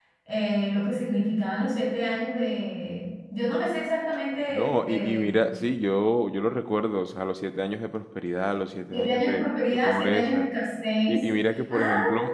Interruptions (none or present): present